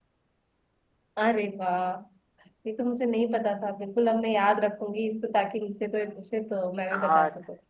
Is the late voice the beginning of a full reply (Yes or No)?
Yes